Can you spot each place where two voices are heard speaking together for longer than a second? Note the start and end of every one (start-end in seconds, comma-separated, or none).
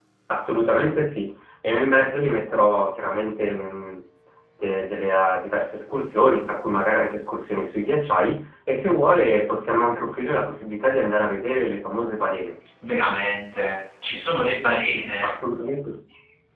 none